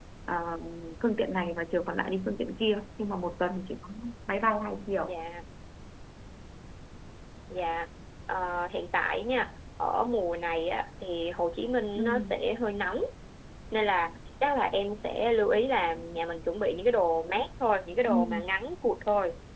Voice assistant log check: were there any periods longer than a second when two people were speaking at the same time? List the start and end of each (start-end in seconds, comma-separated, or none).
none